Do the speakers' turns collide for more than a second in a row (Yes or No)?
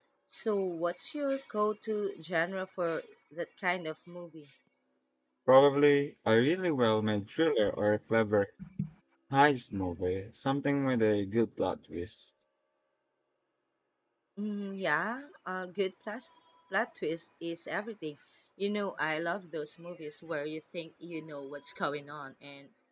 No